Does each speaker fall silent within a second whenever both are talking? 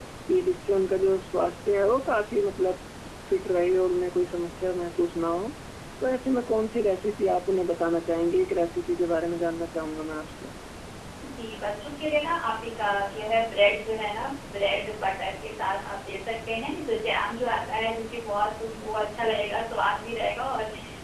Yes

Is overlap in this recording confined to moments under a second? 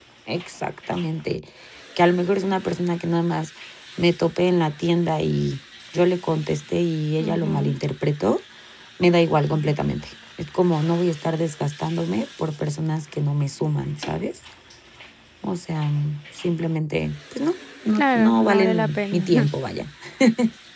No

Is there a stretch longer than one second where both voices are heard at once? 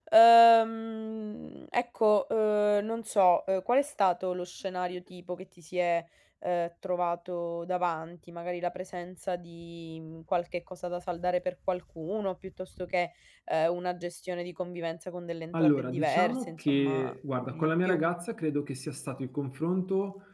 Yes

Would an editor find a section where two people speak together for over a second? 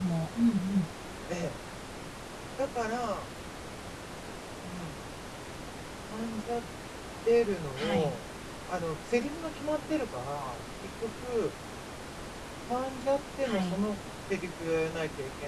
No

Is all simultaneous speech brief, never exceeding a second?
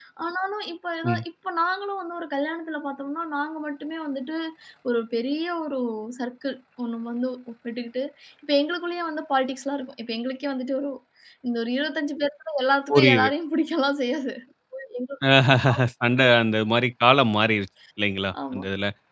Yes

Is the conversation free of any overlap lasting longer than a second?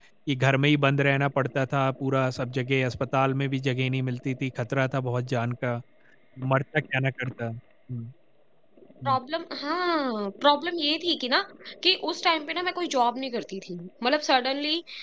Yes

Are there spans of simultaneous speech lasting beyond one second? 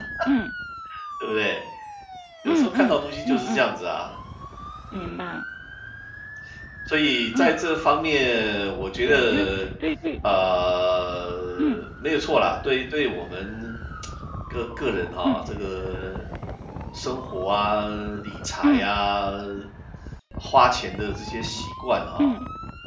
Yes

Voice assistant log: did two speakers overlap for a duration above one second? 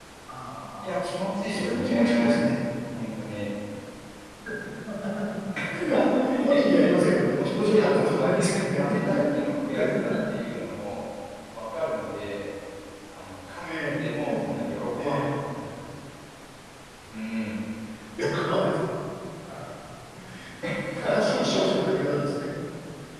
Yes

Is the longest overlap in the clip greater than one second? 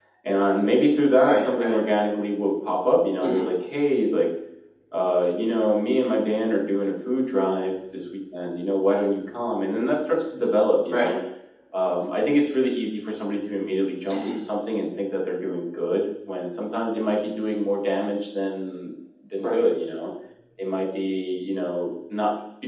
No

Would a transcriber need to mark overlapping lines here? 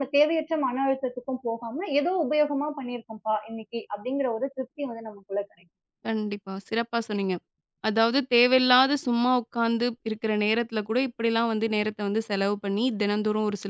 No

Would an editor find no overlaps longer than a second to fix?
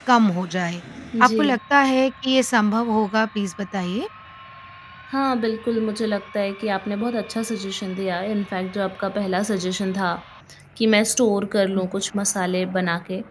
Yes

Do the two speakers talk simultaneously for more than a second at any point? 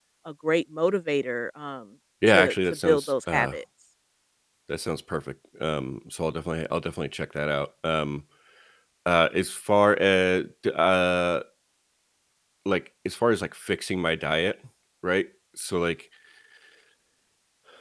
Yes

